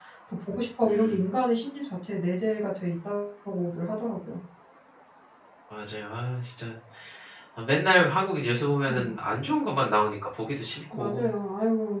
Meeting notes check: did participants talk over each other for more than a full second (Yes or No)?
No